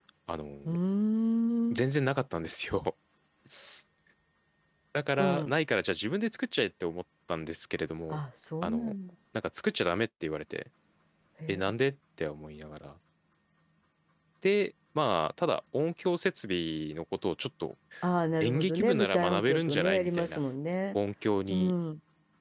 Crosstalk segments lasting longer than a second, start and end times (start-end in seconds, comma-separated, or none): 18.4-20.4